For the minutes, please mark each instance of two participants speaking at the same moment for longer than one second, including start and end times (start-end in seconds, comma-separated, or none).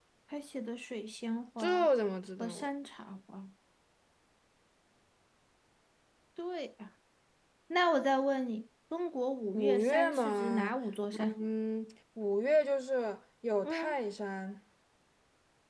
9.5-10.8